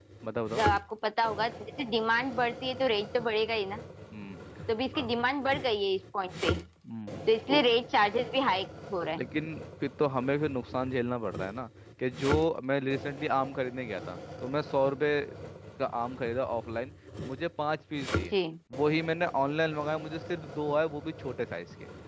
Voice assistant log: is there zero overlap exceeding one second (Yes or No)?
Yes